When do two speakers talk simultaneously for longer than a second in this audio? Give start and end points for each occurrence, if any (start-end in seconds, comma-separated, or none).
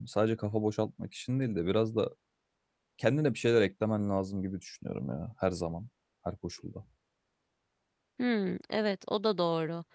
none